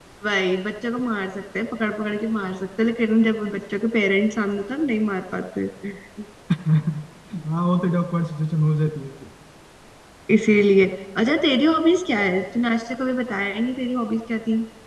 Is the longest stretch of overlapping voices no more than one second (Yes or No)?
Yes